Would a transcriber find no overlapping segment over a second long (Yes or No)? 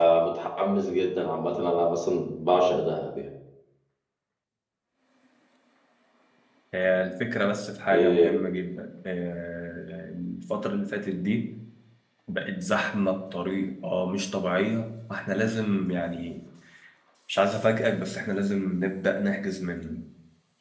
Yes